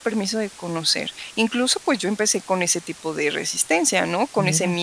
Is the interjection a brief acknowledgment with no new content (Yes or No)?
Yes